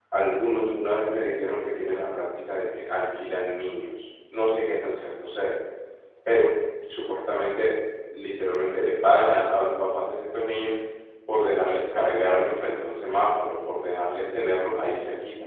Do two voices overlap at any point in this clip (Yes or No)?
No